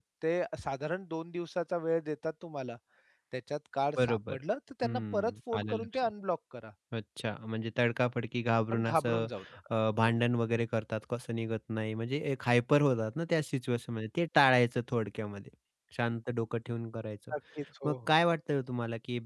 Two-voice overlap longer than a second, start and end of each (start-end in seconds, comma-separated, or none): 4.8-6.1